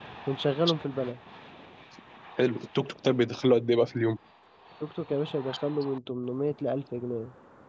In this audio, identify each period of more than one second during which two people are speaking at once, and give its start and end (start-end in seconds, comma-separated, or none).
none